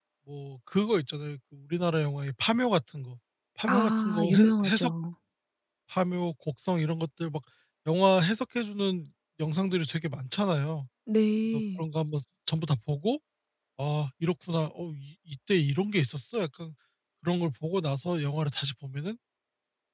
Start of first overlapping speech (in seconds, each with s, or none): 3.7 s